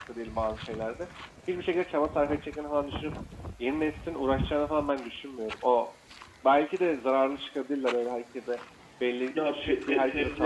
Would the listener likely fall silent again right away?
No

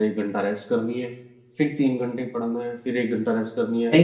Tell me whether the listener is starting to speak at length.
Yes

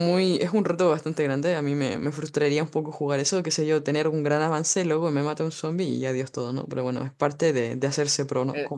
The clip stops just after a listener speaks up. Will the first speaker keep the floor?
No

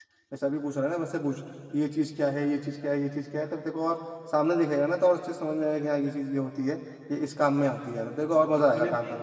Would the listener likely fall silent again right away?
No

